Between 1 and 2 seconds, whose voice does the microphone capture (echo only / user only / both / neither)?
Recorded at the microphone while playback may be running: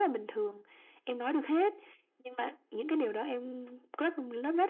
echo only